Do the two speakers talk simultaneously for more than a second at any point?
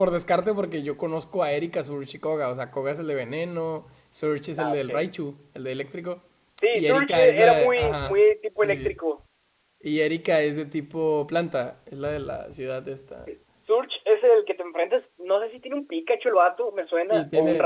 Yes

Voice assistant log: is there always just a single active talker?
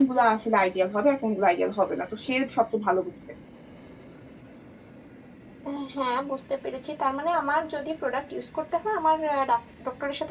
Yes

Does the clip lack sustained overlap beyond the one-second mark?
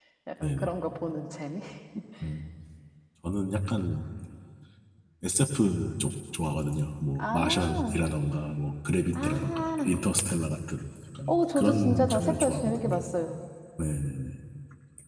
No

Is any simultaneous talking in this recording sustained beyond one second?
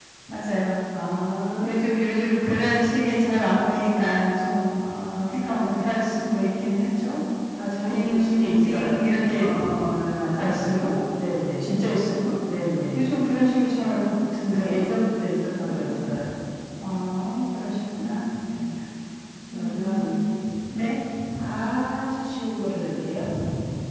Yes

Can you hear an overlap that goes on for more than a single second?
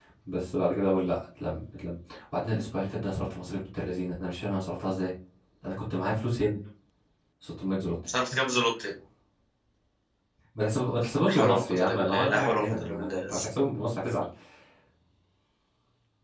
Yes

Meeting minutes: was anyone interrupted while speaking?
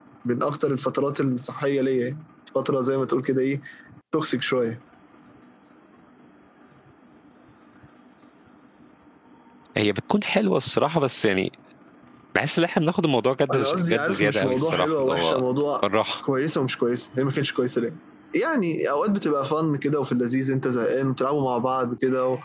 Yes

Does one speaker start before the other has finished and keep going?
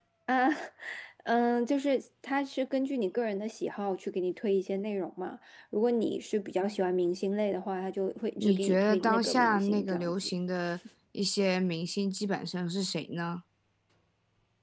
Yes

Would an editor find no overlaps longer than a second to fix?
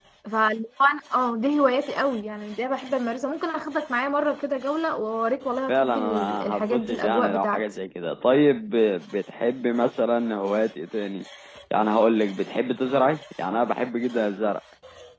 No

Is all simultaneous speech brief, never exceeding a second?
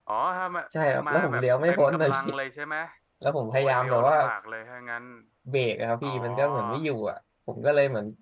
No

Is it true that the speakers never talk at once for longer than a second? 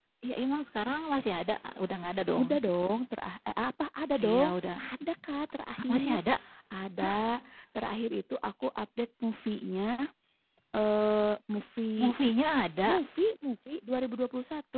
Yes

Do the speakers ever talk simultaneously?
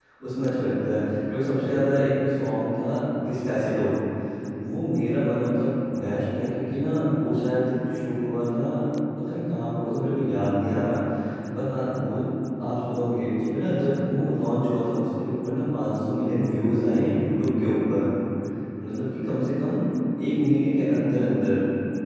No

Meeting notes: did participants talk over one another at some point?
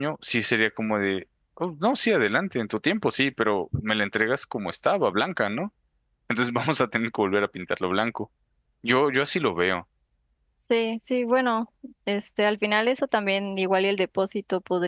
No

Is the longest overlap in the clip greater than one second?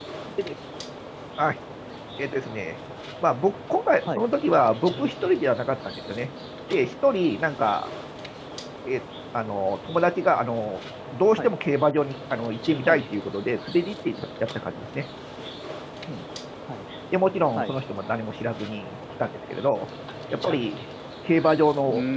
No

